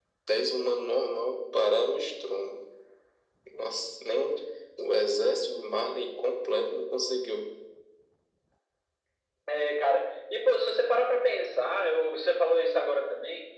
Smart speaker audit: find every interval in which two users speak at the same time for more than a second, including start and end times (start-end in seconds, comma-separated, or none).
none